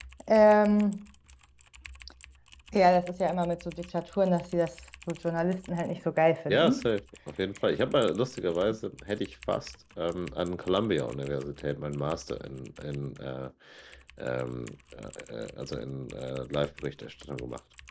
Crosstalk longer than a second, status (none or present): none